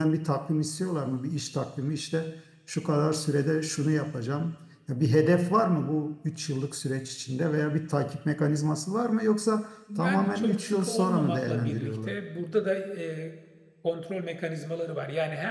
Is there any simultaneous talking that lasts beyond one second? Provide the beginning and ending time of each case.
10.0-12.2

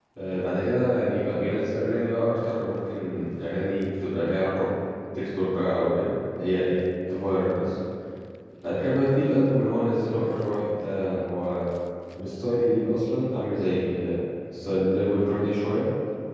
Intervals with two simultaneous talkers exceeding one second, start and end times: none

